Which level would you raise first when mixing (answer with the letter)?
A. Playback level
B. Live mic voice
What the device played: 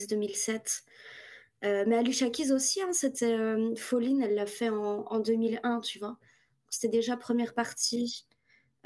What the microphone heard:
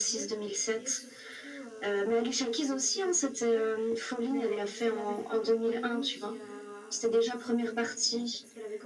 B